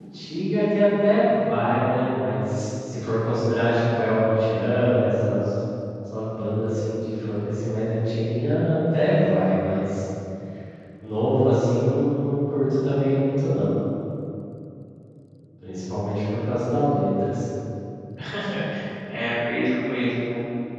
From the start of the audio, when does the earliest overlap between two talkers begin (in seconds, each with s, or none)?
none